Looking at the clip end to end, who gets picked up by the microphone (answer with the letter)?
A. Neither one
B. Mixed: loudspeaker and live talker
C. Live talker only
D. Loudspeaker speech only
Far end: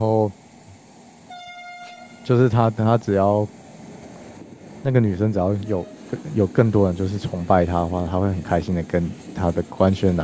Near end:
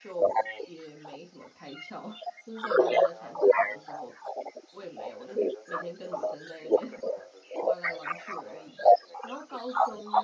B